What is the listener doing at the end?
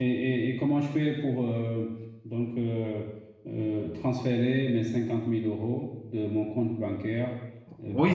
taking over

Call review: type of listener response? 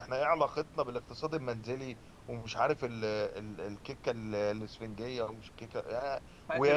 listening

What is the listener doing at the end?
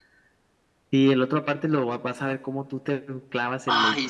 taking over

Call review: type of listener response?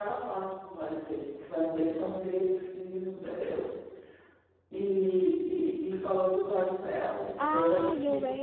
taking over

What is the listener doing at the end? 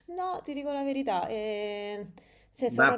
taking over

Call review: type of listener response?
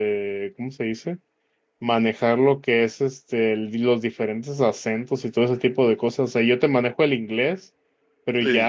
listening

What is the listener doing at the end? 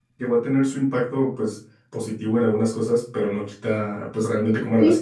taking over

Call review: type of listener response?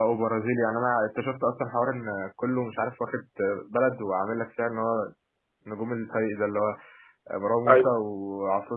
listening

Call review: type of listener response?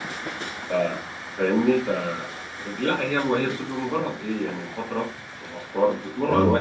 listening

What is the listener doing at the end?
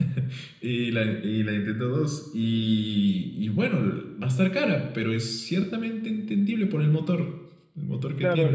taking over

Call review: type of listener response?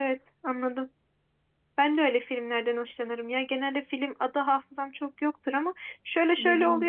listening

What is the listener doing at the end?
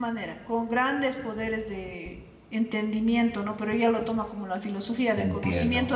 listening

